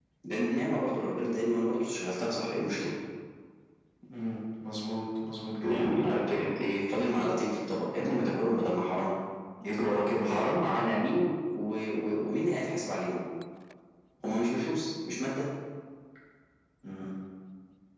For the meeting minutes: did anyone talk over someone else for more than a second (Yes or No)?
No